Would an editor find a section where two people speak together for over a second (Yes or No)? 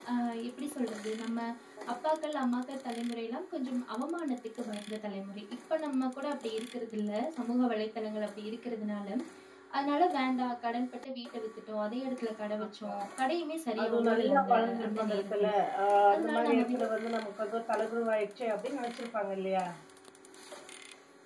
Yes